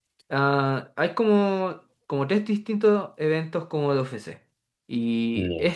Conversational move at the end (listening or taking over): listening